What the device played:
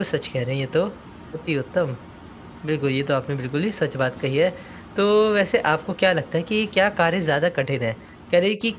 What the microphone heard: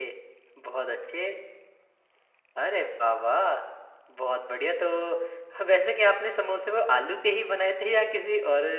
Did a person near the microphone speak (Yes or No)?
Yes